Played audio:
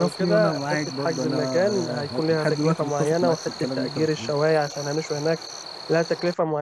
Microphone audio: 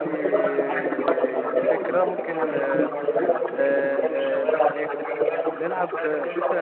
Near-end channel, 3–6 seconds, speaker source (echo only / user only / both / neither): both